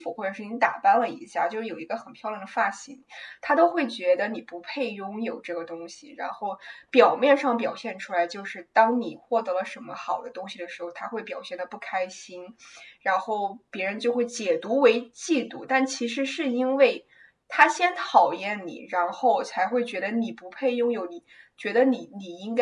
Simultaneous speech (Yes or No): No